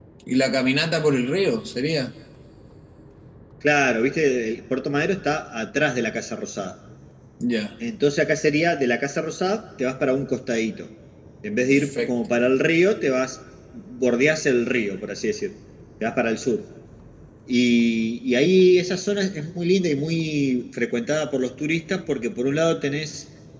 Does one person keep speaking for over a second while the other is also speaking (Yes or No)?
No